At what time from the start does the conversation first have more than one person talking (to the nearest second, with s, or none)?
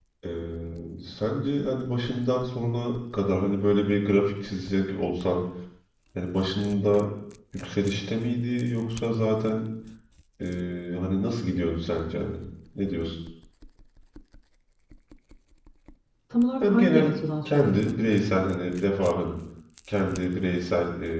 17 s